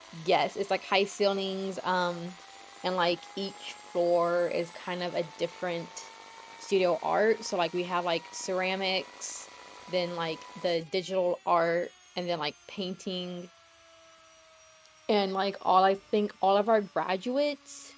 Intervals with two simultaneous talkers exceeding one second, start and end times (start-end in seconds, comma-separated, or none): none